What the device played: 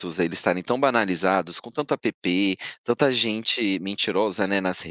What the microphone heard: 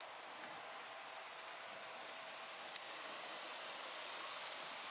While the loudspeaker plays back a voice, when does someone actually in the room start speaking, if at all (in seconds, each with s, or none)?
none